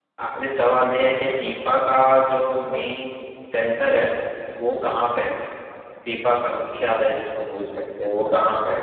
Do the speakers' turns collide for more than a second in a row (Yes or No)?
No